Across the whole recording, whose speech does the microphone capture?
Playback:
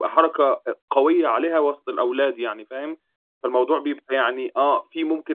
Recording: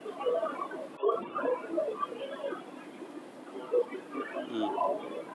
both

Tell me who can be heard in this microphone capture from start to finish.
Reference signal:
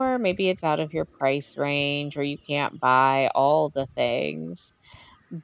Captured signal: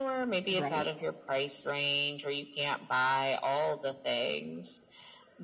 both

